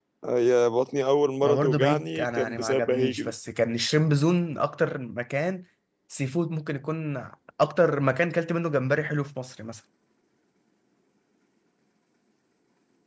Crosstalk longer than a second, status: present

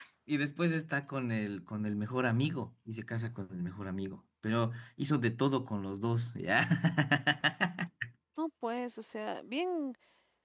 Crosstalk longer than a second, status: none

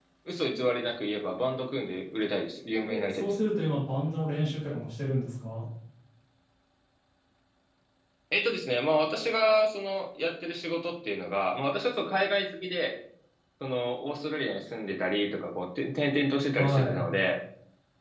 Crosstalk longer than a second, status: none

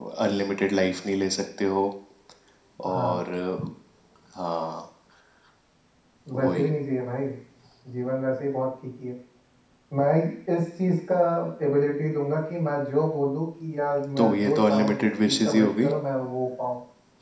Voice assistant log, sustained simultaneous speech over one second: present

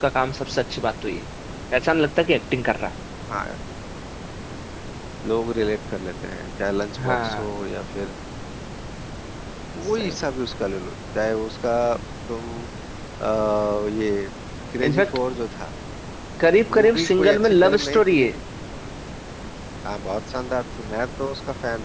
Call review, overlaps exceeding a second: present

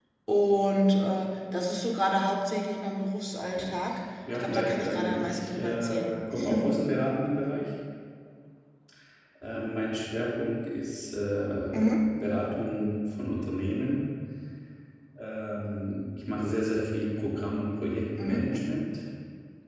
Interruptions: present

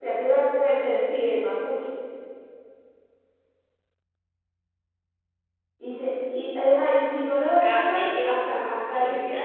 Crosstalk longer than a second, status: present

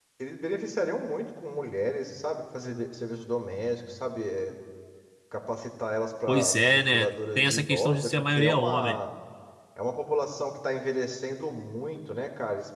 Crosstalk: present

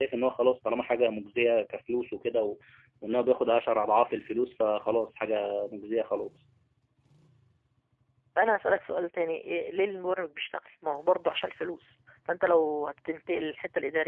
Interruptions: none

